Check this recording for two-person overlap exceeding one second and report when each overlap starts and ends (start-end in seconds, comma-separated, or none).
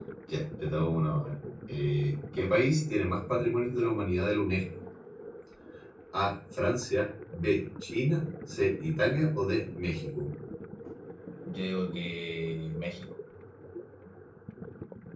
none